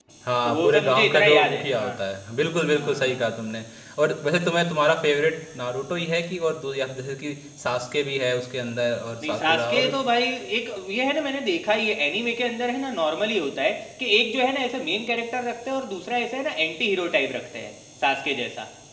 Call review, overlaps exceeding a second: present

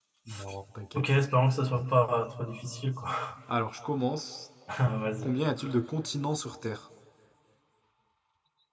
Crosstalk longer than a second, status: none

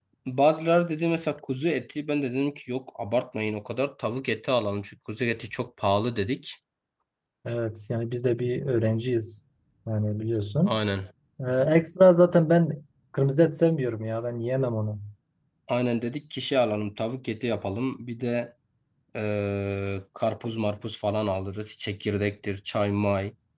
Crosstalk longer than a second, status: none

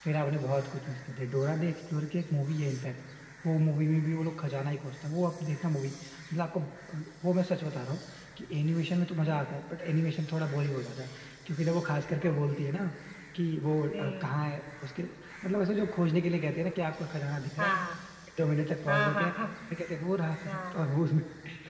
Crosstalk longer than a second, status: none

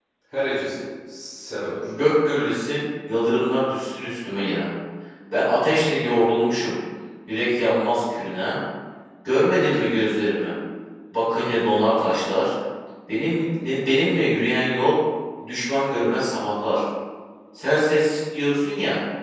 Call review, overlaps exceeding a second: none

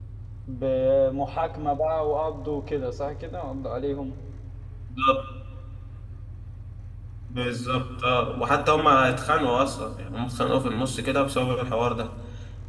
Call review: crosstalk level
none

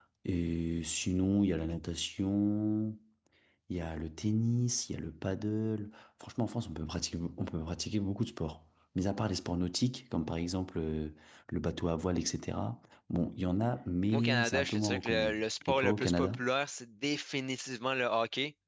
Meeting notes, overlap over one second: present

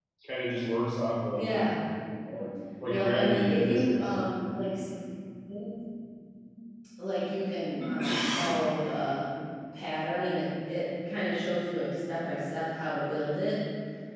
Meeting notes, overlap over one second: present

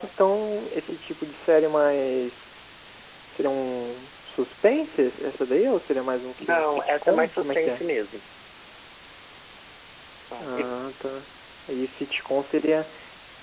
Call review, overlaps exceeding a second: present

